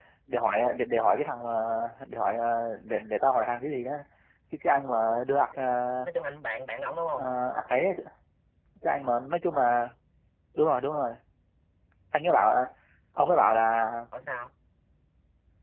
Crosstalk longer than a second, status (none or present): none